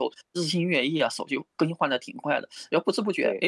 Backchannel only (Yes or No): Yes